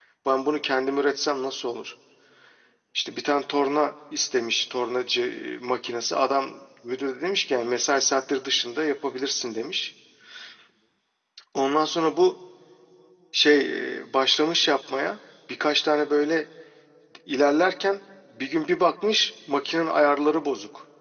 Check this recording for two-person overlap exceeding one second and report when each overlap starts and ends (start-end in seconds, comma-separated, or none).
none